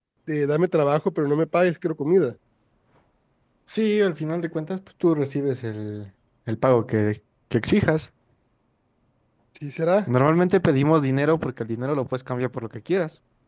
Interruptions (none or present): none